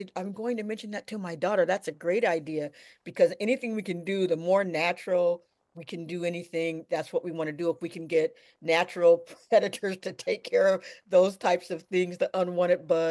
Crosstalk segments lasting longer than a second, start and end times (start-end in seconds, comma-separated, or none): none